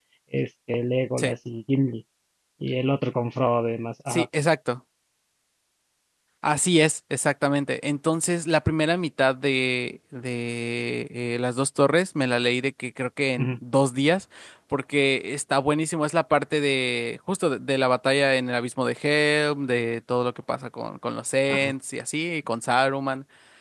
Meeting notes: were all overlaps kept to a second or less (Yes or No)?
Yes